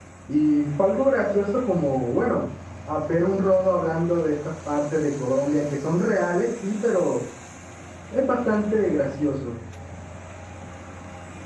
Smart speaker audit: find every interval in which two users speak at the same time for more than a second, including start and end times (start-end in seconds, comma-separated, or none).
none